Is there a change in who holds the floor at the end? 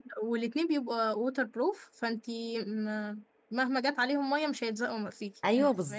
Yes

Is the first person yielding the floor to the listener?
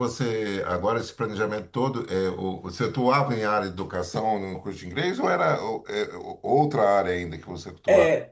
Yes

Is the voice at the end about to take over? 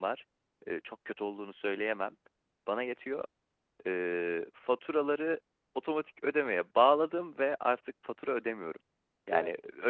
Yes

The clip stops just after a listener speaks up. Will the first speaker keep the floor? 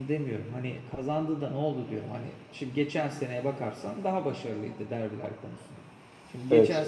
Yes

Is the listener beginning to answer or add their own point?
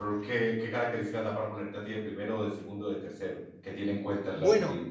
Yes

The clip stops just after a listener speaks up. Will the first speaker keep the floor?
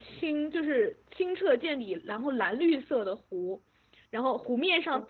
Yes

